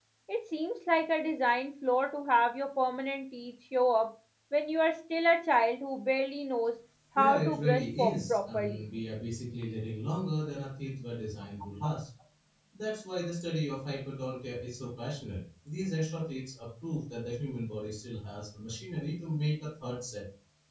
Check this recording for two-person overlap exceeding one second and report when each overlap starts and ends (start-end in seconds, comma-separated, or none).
7.2-8.9